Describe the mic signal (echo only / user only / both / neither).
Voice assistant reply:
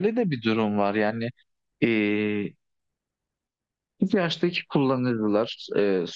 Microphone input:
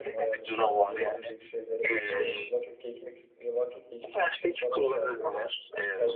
both